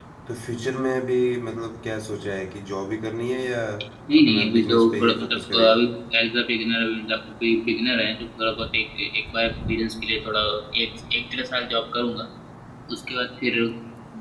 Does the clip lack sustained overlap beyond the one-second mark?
No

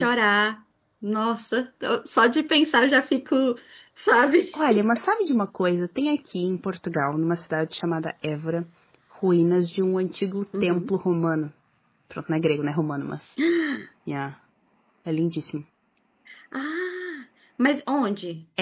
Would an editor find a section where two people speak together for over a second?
No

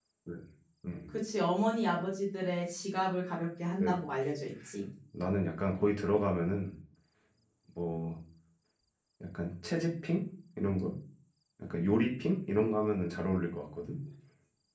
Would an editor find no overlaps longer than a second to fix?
Yes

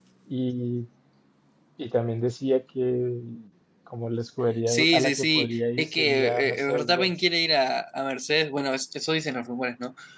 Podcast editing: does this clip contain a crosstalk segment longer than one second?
Yes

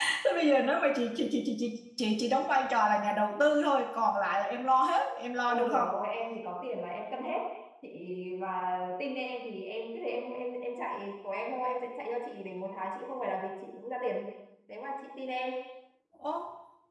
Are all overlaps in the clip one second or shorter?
Yes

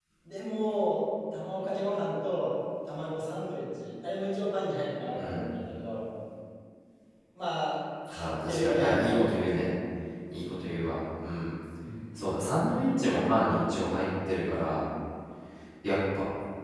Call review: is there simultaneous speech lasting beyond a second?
Yes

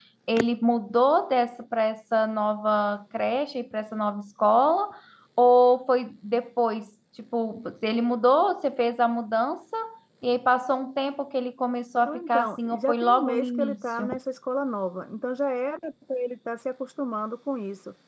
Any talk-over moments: Yes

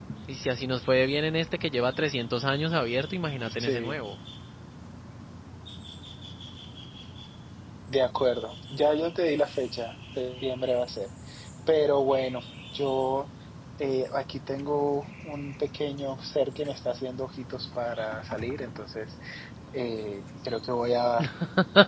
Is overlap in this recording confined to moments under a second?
Yes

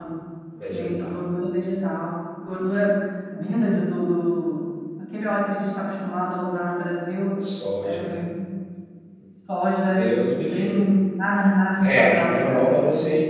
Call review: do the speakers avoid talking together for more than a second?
No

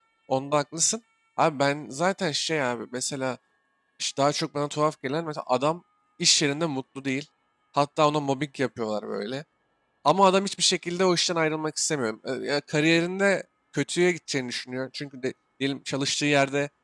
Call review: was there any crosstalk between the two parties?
No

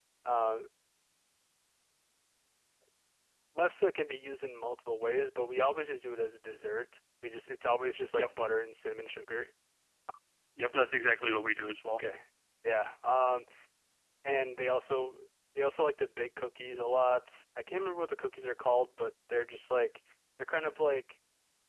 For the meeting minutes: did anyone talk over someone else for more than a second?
No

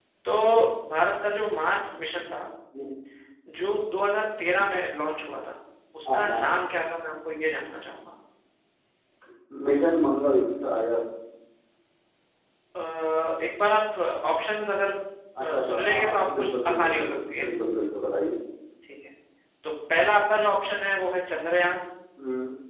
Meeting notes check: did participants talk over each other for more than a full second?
Yes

